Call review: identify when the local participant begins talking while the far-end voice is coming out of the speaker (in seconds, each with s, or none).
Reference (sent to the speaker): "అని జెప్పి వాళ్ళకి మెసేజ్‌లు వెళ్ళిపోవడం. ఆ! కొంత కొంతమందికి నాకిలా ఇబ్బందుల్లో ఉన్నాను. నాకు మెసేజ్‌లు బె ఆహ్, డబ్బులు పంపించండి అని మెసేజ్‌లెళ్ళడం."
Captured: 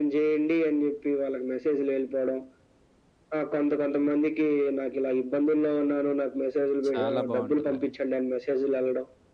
6.9 s